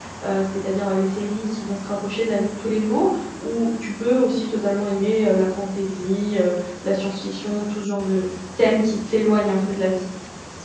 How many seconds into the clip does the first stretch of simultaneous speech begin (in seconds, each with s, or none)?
none